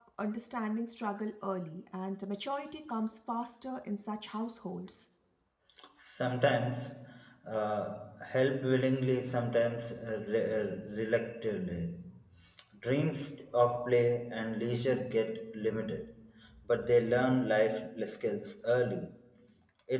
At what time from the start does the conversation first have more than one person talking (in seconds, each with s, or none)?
none